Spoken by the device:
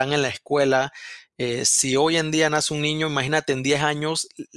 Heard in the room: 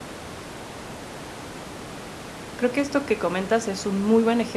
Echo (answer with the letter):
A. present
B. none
B